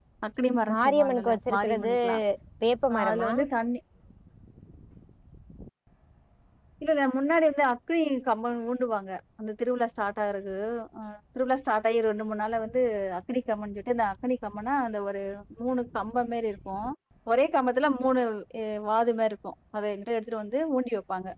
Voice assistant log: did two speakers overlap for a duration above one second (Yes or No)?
Yes